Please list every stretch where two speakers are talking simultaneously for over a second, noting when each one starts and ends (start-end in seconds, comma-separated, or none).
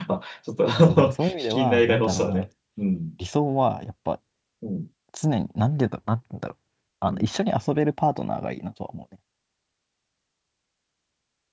0.7-2.5